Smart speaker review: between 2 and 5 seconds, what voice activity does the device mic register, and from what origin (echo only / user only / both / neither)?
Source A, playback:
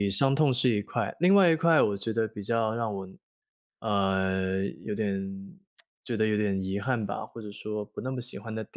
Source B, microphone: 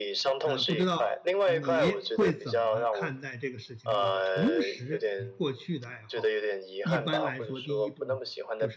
both